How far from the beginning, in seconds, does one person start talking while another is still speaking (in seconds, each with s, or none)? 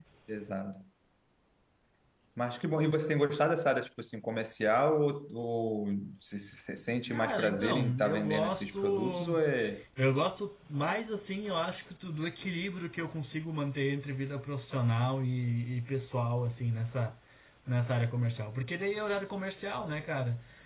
7.1 s